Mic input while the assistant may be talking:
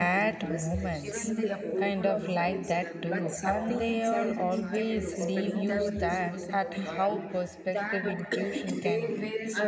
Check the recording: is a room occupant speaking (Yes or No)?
Yes